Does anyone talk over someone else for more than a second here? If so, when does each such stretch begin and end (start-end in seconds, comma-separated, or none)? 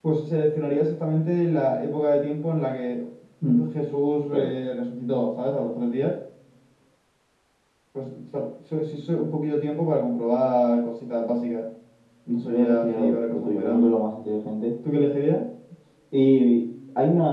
12.3-13.9